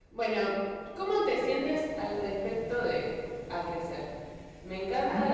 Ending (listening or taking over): listening